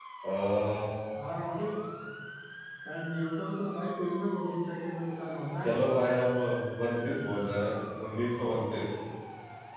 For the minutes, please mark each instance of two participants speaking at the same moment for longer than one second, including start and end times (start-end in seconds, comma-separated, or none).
none